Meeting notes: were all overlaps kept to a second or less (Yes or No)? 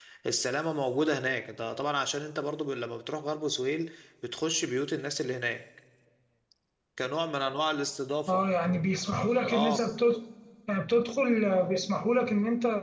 Yes